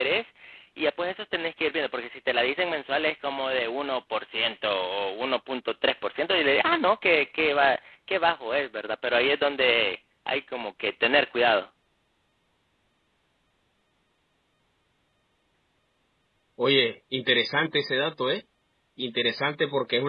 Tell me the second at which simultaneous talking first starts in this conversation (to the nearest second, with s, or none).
none